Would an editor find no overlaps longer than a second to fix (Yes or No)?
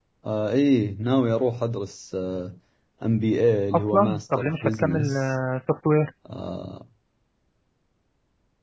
No